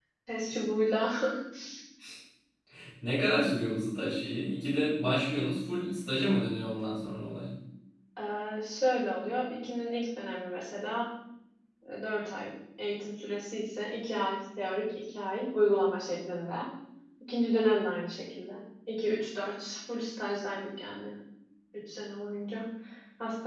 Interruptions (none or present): none